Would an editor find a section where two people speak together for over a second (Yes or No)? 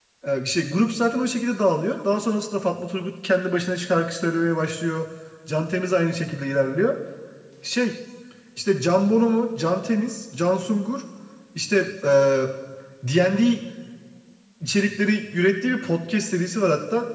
No